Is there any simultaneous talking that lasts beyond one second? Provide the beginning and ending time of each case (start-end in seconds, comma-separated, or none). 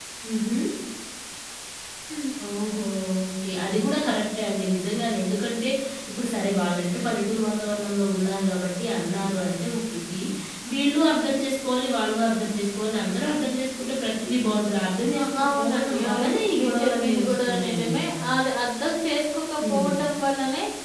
15.2-18.0